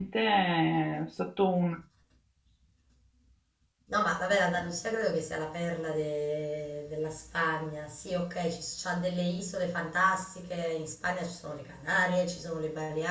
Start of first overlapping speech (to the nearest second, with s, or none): none